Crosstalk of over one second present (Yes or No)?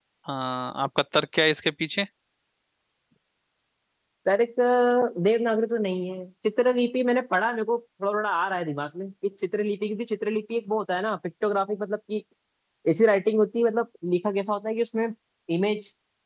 No